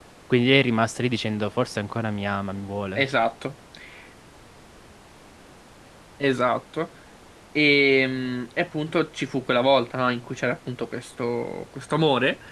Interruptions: none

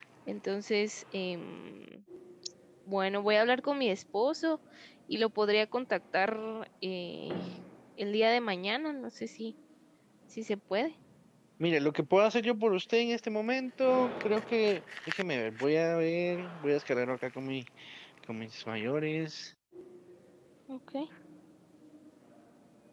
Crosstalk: none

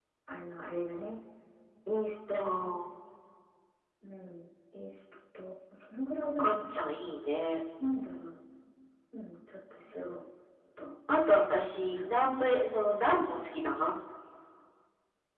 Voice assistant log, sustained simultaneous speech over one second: none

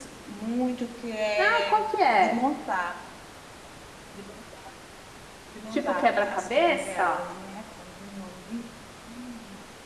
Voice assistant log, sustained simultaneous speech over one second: present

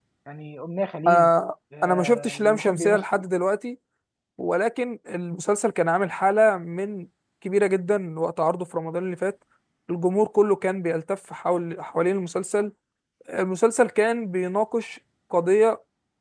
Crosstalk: present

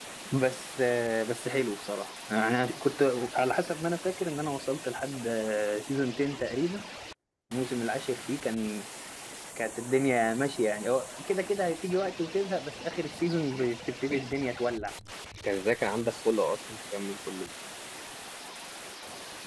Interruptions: none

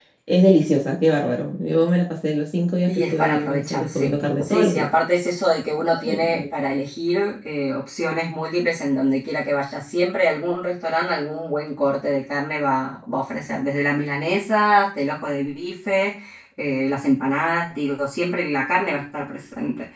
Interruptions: present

